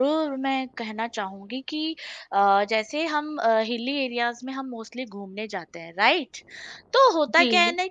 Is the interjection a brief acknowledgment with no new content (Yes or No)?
Yes